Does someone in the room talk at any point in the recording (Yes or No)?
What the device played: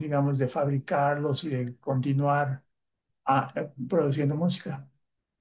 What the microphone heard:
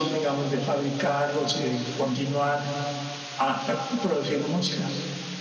No